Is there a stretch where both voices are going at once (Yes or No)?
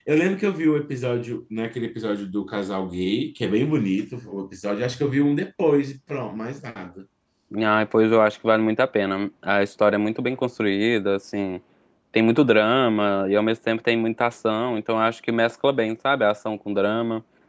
No